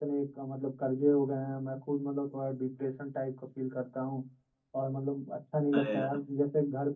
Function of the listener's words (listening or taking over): listening